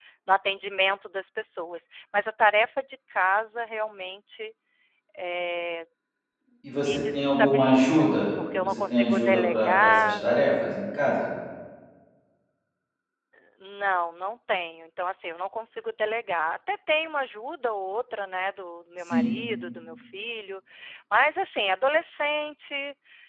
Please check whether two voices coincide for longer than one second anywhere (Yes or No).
Yes